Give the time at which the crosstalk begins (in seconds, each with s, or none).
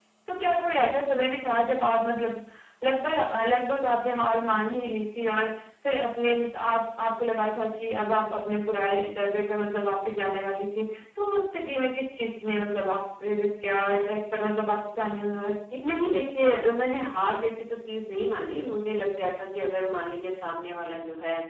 none